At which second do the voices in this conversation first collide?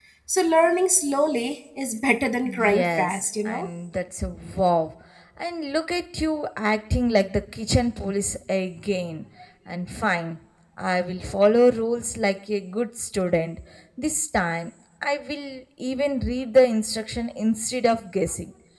2.5 s

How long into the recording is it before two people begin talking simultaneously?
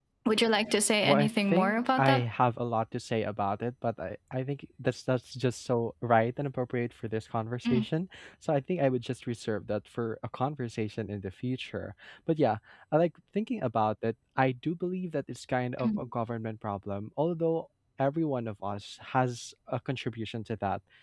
1.0 s

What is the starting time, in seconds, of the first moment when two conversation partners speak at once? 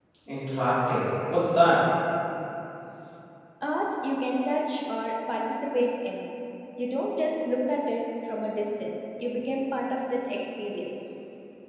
none

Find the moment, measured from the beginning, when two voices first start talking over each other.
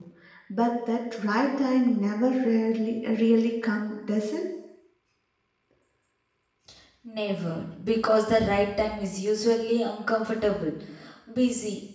none

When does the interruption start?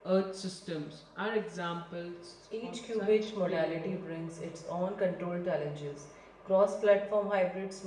2.5 s

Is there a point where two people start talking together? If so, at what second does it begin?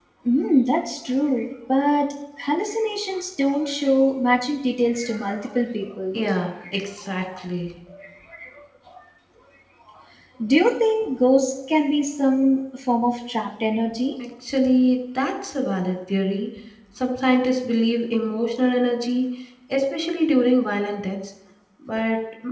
none

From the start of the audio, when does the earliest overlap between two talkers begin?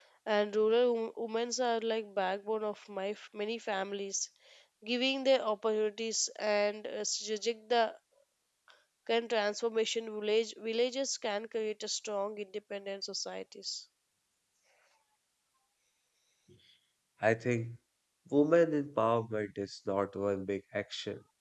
none

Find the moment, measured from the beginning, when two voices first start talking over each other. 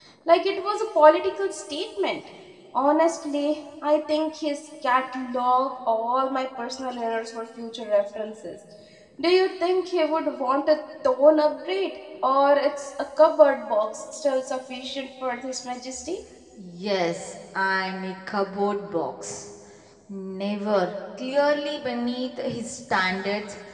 none

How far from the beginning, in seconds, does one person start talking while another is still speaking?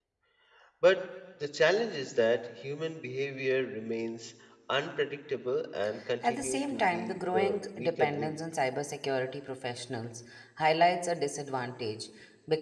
6.2 s

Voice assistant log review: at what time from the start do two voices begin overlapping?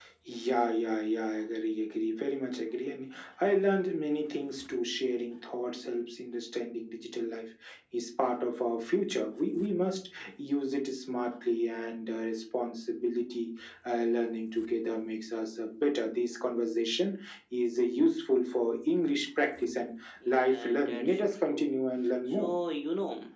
20.2 s

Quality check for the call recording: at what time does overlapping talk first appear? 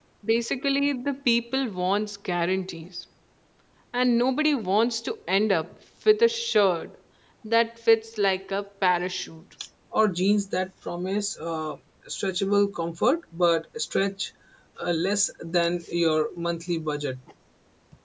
none

